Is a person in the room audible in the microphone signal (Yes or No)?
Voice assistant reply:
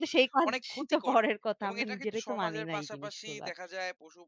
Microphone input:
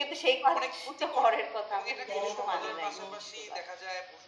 Yes